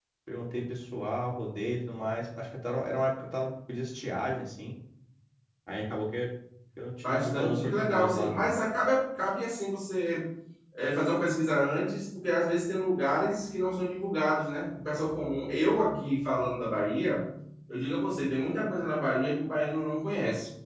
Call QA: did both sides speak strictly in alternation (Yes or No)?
No